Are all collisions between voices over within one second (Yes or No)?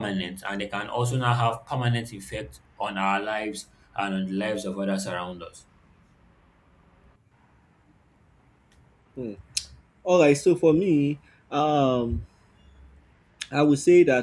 Yes